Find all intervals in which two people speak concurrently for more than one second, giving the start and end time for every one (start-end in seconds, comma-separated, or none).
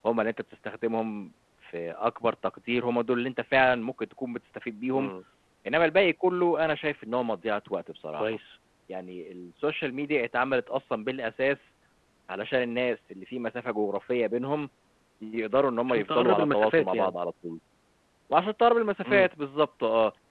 15.9-17.2